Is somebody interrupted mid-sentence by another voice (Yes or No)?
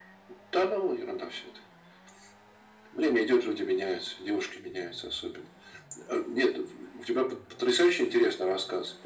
No